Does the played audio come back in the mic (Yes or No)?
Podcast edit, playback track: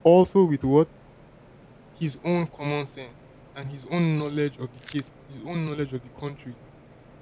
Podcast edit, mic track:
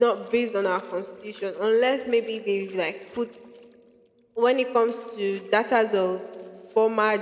No